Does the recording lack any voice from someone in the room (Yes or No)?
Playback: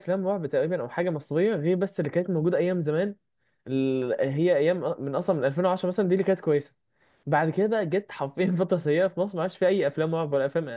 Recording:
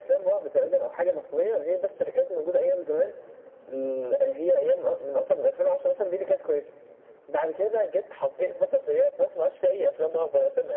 Yes